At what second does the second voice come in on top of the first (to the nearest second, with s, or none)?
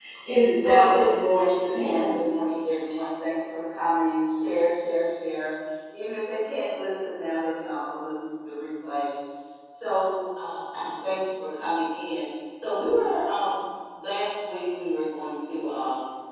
1 s